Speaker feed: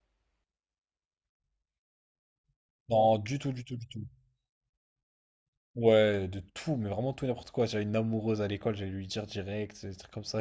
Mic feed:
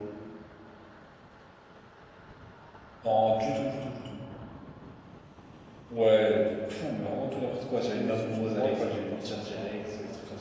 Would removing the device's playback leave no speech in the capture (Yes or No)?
No